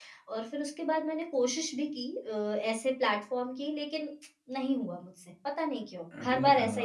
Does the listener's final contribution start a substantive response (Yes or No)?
Yes